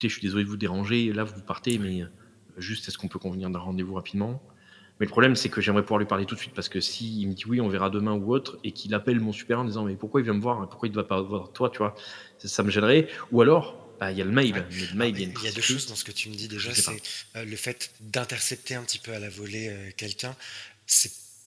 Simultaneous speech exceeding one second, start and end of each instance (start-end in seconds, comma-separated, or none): 14.5-15.8